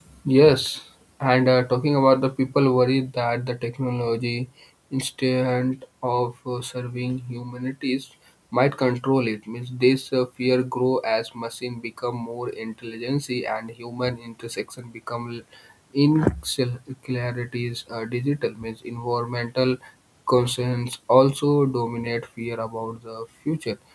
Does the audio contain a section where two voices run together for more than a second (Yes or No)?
No